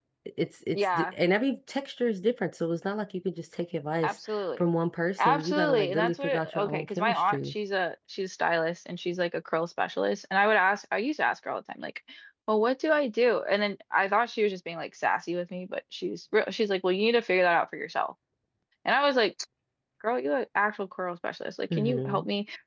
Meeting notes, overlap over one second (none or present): present